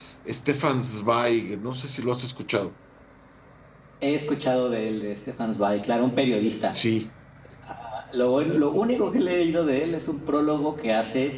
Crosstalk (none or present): none